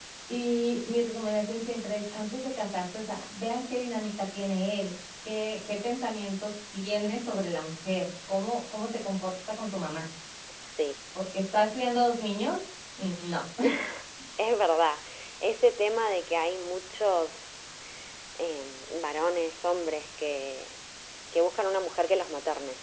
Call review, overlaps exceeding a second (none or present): none